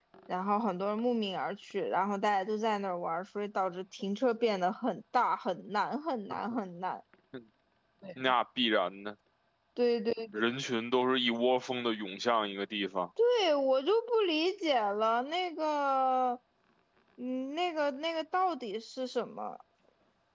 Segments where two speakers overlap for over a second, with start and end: none

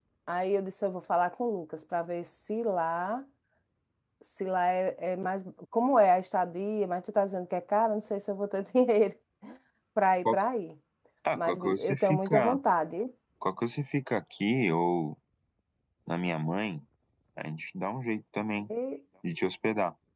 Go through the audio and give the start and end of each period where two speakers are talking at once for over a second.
11.3-12.6

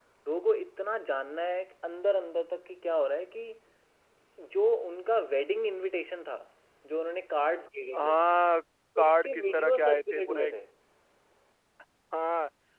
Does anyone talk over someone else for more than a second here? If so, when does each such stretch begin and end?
9.0-10.5

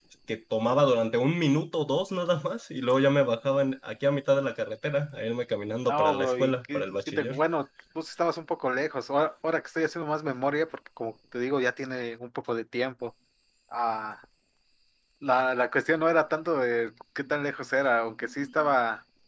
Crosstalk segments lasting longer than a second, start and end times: 5.9-7.4

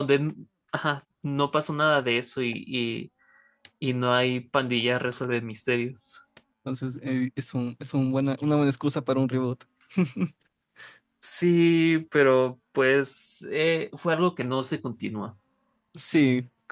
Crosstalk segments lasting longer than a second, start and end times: none

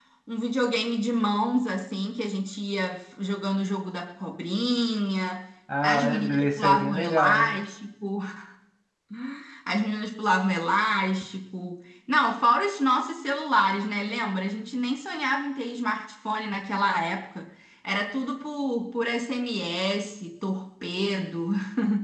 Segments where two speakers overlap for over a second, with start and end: 5.8-7.4

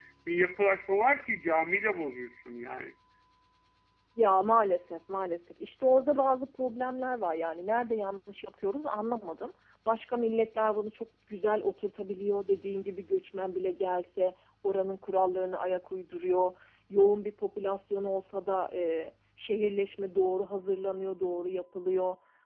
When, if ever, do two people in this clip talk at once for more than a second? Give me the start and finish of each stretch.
none

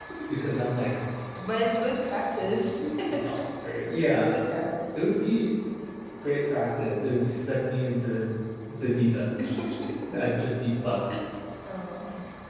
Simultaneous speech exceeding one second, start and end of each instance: none

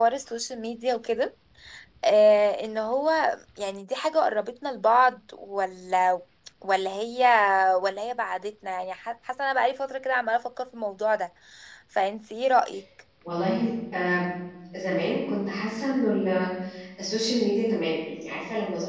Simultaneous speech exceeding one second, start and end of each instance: none

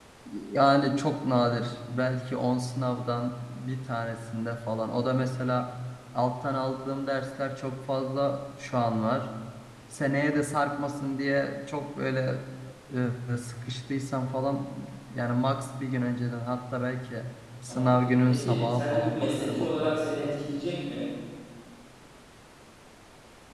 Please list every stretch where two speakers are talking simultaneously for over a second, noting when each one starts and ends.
17.7-20.0

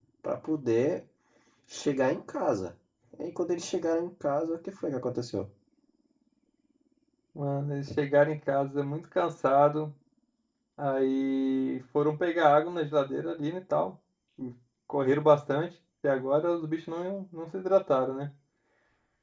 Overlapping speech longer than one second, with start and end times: none

